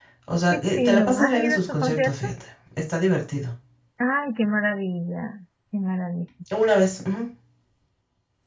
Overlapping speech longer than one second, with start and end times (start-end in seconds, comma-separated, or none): 0.5-2.3